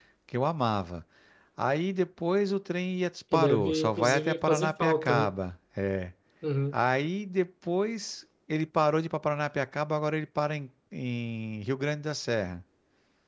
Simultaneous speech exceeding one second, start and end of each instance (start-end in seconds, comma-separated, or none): 3.3-5.3